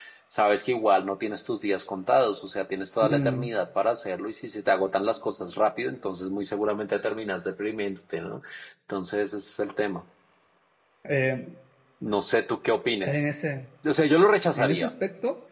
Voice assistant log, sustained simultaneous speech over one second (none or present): none